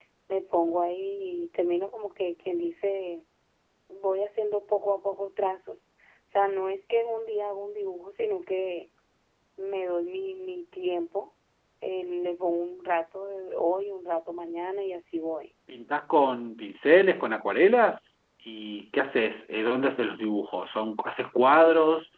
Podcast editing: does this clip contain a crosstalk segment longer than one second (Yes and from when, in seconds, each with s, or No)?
No